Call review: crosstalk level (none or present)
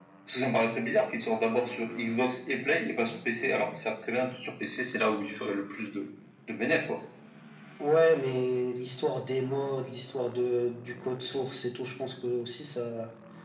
none